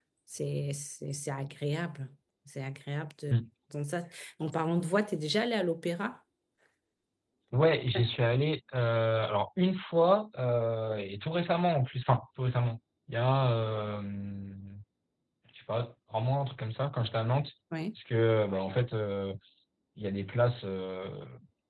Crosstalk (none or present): none